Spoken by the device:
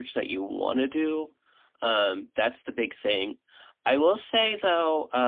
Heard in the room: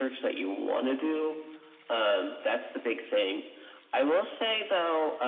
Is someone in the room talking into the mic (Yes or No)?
No